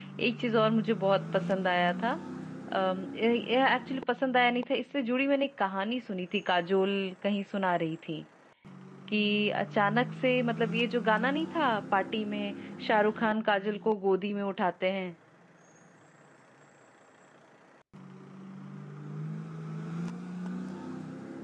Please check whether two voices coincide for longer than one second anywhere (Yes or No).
No